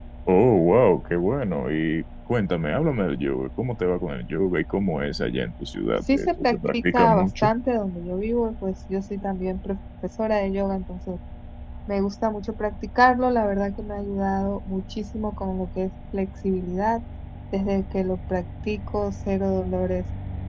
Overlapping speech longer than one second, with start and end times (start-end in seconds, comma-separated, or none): 6.1-7.5